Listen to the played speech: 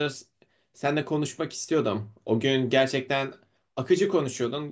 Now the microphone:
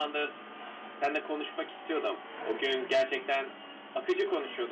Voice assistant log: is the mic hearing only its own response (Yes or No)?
Yes